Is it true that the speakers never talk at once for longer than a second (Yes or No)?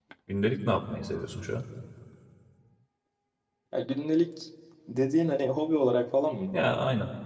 Yes